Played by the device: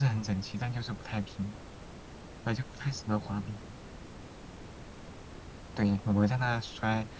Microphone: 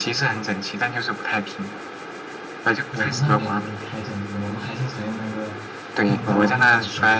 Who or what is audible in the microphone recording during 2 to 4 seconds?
both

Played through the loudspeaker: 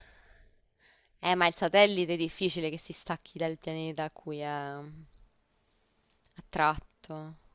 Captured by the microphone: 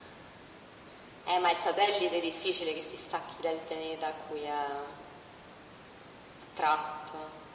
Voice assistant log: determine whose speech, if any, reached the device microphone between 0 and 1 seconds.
neither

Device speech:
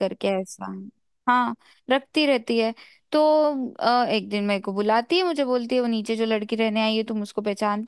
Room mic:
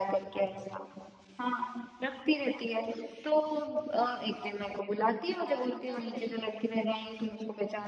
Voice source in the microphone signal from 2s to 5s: echo only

